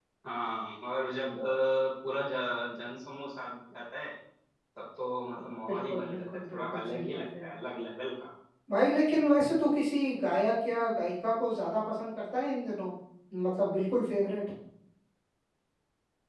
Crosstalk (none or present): present